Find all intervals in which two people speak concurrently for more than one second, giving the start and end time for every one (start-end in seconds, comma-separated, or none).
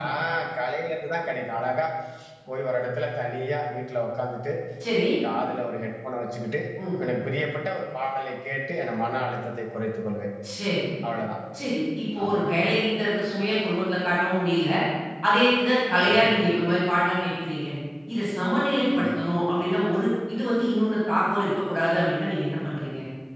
none